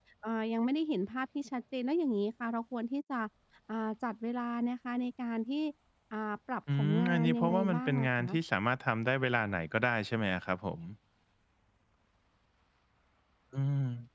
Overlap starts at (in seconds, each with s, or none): 6.8 s